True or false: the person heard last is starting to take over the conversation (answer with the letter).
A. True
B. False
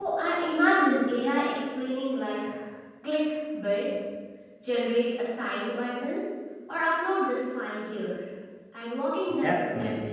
A